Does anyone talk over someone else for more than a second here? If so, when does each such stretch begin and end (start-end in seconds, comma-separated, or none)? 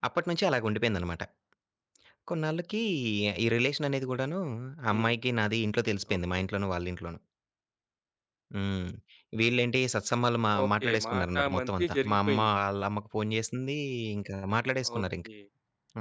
10.6-12.5